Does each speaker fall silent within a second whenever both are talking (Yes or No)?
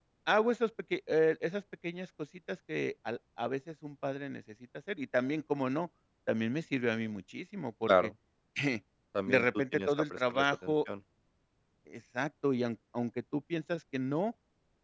No